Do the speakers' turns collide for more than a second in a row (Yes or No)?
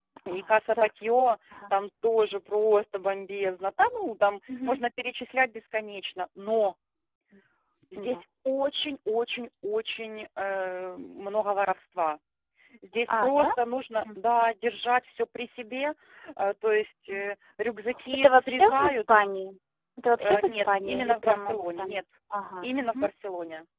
Yes